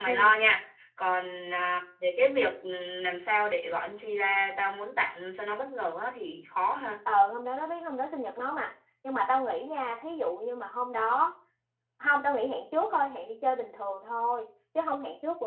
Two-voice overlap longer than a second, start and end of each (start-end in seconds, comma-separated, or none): none